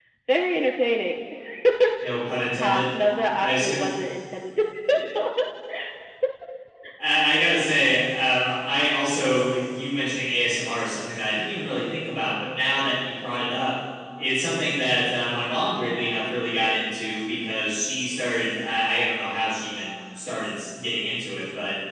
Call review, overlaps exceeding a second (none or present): none